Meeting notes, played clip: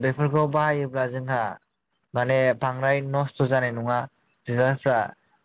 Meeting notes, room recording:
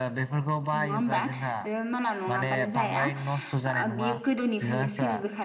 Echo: present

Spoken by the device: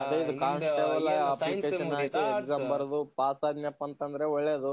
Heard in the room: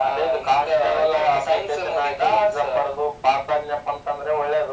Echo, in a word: present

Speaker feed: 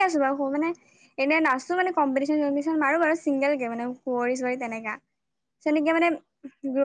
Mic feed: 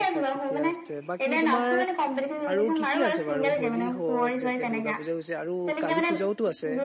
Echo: present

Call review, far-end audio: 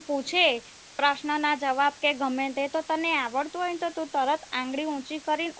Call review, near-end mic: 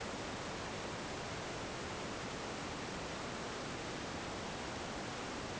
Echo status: none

